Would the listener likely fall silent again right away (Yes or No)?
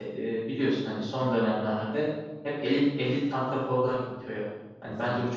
Yes